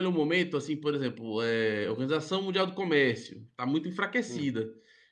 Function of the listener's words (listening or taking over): listening